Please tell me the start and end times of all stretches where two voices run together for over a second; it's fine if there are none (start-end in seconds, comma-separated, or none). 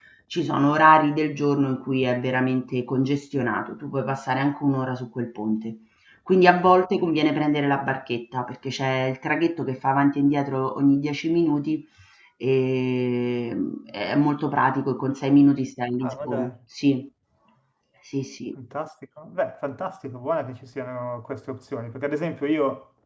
none